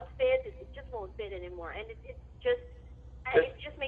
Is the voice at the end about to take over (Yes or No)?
No